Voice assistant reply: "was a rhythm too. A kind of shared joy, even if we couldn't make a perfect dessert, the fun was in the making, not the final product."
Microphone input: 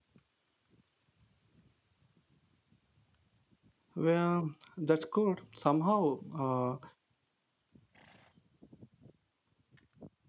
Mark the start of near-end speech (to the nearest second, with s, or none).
4 s